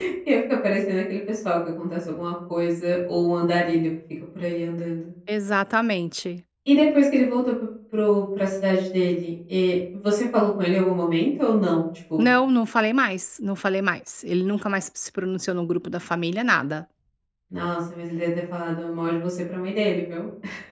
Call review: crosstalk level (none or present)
none